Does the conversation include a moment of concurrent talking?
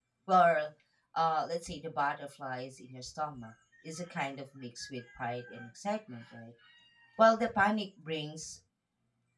No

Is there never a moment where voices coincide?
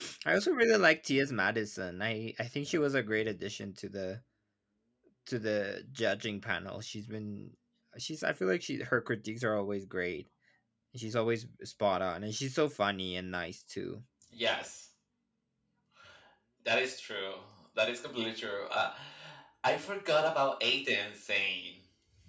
Yes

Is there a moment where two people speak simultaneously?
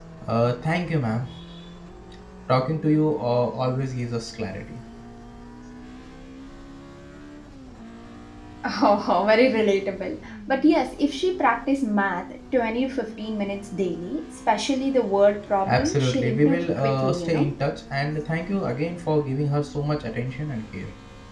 Yes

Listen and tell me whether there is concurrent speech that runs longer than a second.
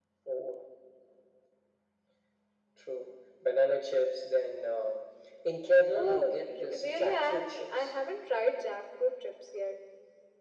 Yes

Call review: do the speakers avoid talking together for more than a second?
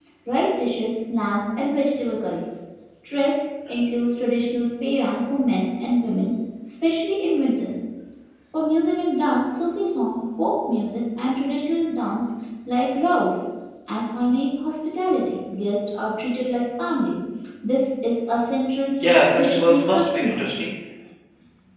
No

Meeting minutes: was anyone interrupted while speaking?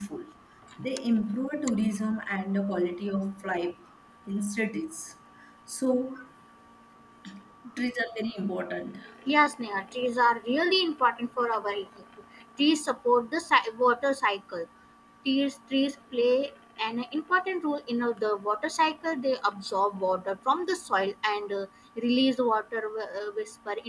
No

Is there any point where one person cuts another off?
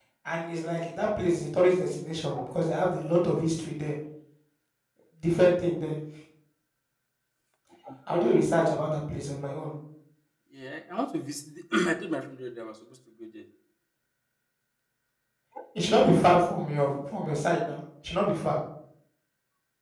No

